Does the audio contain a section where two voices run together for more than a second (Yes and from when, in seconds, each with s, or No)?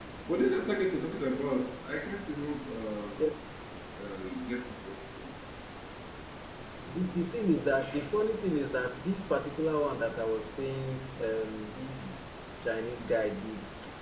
No